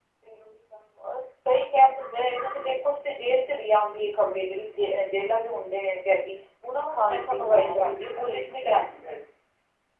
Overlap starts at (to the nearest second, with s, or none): 7 s